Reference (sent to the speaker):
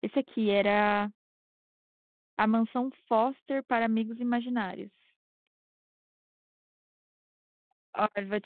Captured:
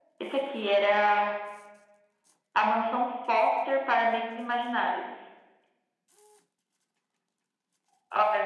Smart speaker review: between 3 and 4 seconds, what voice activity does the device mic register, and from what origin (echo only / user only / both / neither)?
echo only